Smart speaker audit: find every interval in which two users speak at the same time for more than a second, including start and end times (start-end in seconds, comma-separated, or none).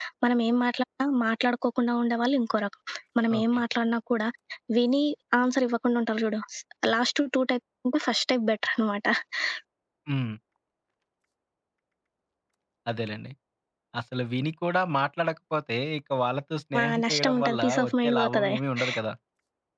16.8-18.5